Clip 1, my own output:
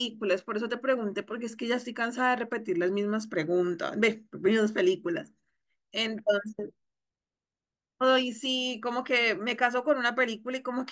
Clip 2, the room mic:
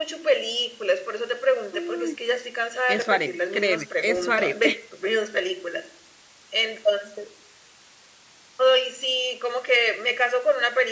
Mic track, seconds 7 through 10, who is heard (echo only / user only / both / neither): echo only